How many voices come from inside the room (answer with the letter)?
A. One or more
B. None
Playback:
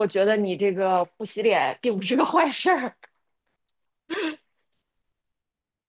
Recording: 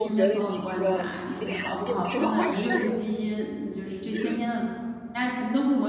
A